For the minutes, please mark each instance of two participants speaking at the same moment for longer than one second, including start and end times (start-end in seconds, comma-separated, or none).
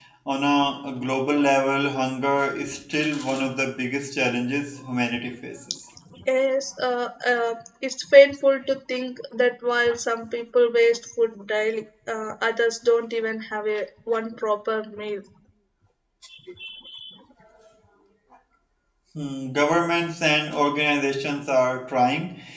none